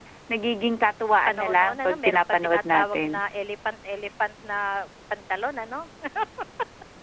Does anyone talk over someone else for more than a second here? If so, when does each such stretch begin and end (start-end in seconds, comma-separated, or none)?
1.3-3.2